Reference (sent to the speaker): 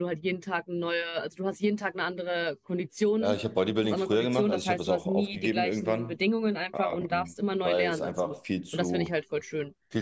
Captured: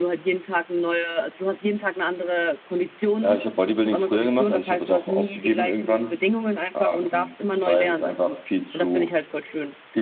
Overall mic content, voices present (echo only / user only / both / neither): echo only